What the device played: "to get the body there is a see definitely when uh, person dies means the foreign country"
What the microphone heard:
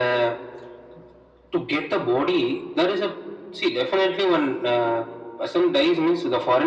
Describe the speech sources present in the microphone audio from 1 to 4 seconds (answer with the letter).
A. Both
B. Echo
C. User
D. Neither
B